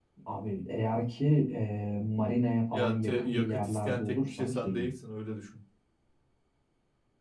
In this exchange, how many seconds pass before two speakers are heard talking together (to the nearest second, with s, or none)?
3 s